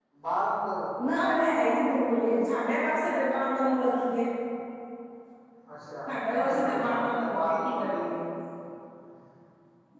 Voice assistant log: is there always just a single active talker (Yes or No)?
No